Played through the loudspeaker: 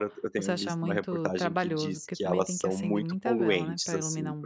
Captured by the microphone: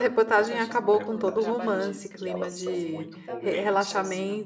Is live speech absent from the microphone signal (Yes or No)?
No